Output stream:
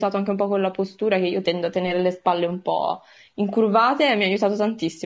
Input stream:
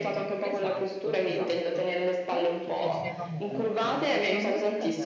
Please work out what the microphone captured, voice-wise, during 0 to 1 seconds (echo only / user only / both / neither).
both